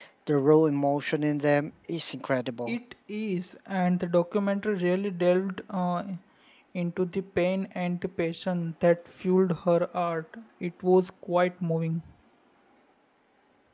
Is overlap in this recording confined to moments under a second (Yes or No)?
Yes